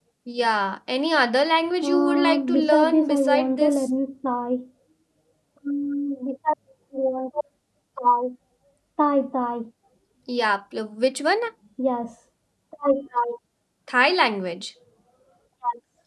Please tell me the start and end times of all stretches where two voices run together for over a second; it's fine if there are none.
1.8-3.9

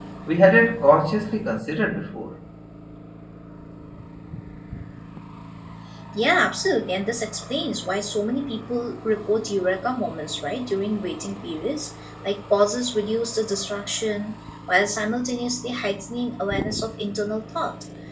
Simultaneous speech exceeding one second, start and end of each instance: none

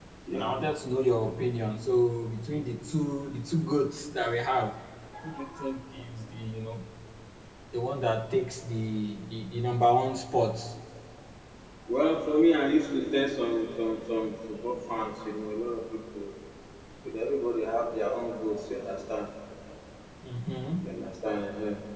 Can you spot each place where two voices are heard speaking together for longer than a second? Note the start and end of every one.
none

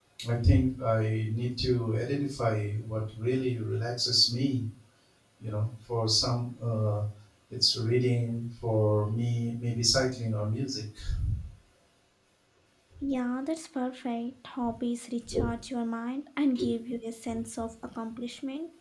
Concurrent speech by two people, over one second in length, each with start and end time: none

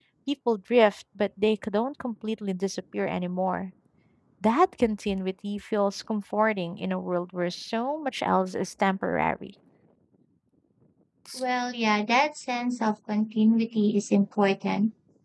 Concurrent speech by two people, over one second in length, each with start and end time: none

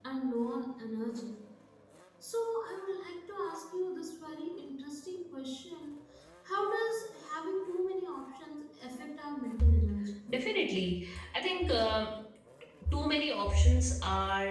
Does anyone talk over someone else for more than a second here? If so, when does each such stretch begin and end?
none

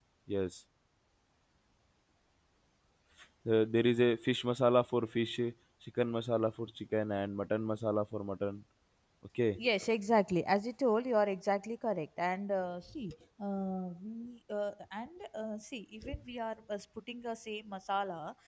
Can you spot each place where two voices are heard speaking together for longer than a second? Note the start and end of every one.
none

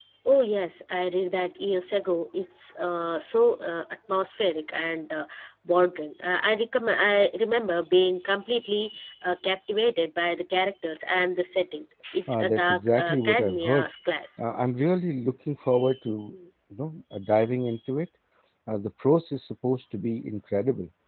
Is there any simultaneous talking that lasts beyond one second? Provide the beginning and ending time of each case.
12.3-13.8

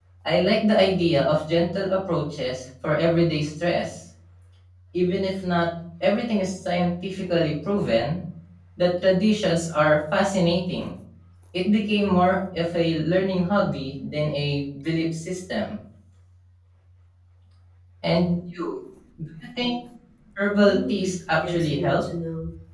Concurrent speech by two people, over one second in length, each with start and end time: 20.5-22.0

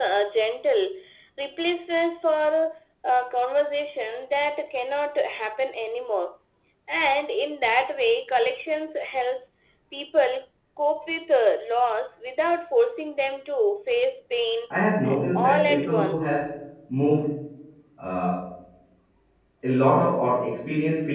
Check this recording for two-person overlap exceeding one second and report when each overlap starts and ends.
15.1-16.4

